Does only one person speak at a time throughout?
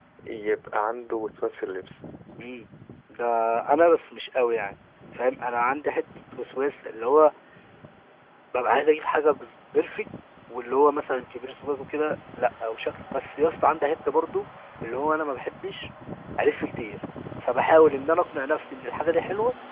Yes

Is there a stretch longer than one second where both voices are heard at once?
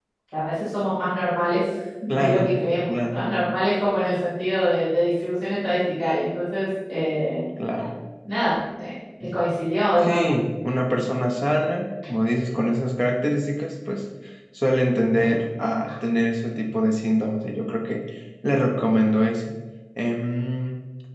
Yes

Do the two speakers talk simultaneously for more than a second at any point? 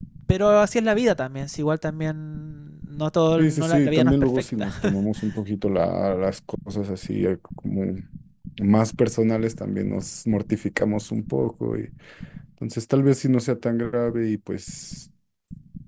Yes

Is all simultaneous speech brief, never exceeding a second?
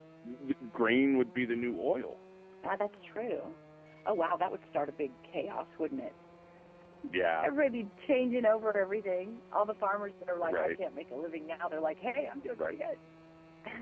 Yes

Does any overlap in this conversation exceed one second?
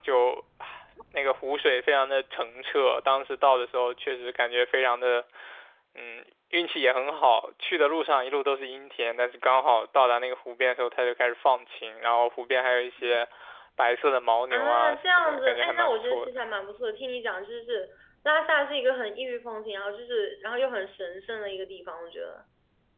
Yes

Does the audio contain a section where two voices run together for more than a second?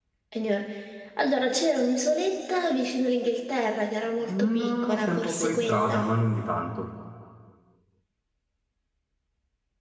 Yes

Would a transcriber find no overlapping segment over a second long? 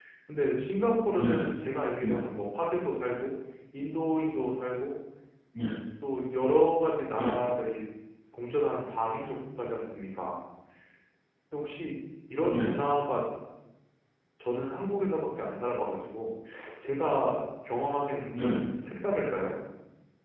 Yes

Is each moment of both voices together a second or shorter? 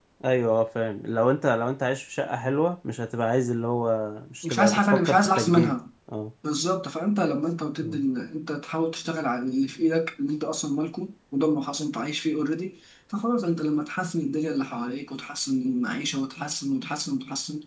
No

